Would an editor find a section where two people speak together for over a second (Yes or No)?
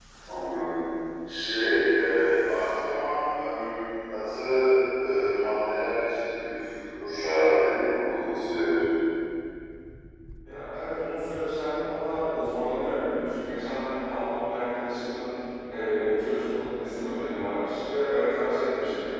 No